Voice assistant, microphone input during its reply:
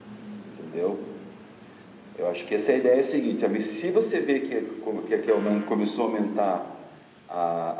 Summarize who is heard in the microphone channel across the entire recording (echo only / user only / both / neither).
echo only